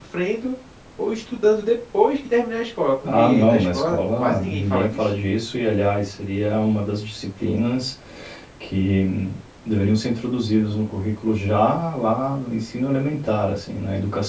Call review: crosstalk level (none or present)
present